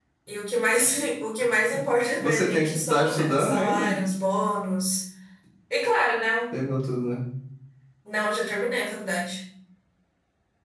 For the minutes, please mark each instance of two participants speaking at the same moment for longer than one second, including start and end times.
2.2-4.0

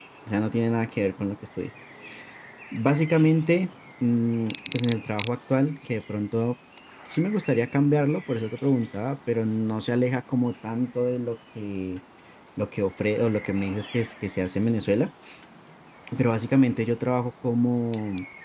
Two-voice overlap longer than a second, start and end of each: none

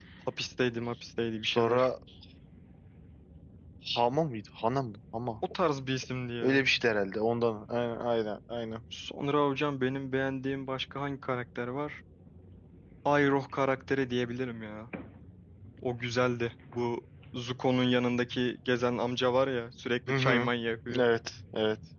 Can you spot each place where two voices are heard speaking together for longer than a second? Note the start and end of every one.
none

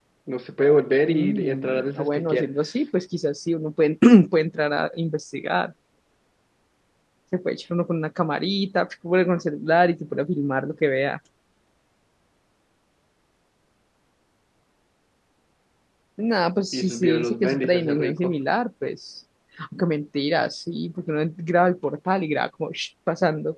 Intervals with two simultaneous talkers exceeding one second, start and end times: 1.1-2.5, 16.7-18.4

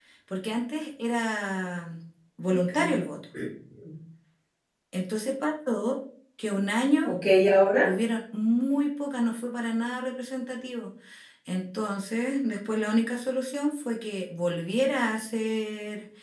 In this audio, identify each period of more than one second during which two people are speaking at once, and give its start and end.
none

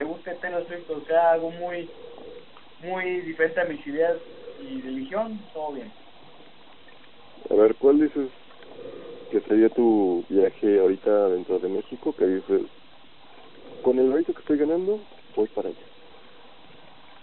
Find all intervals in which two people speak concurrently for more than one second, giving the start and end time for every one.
none

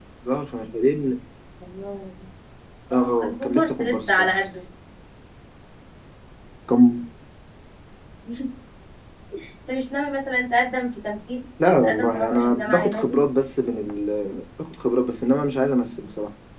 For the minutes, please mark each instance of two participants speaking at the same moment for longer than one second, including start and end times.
2.9-4.3, 11.6-13.2

